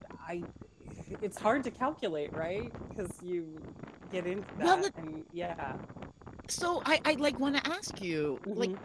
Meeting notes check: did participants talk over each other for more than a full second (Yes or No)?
No